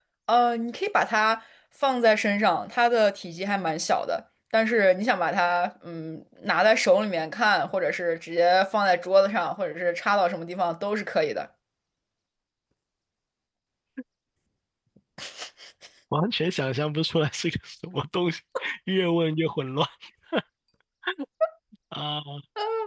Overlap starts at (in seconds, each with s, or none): none